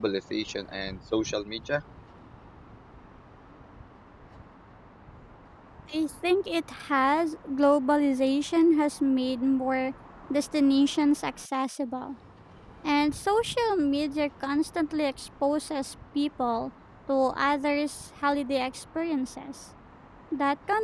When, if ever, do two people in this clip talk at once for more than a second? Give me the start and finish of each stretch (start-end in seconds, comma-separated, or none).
none